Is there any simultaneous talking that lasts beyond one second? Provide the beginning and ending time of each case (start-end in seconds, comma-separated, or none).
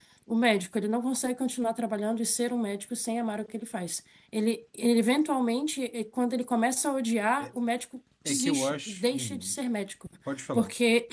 8.3-9.6